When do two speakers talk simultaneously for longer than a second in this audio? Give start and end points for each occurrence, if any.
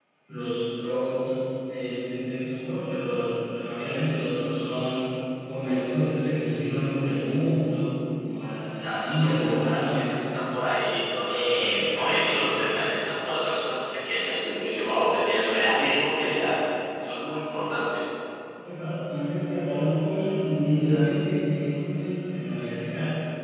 8.8-10.0, 11.3-12.6

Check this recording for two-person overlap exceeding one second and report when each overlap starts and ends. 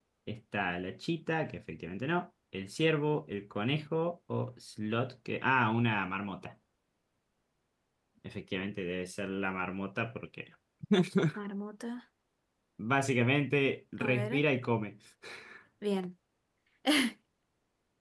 none

